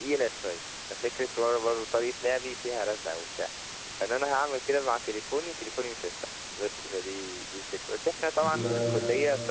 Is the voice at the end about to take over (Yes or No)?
No